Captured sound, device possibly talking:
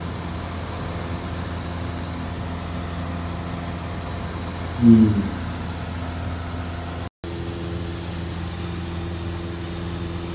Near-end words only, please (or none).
Hmm.